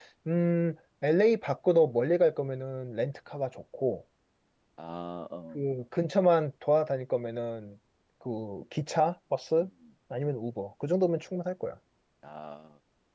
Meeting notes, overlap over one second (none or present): none